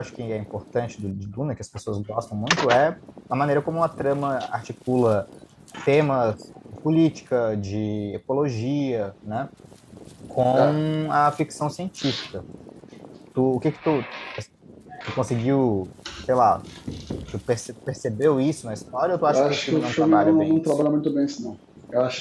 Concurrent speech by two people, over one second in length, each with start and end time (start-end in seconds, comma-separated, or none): 19.3-20.6